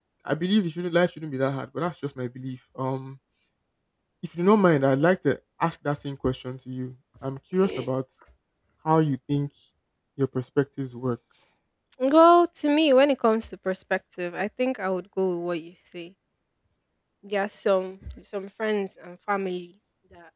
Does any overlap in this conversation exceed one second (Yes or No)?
No